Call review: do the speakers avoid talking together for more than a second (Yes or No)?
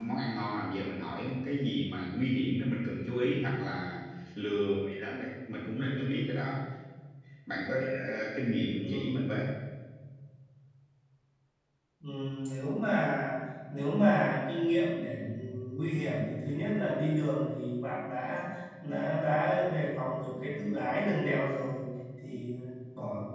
Yes